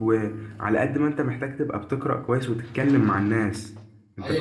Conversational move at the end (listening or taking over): taking over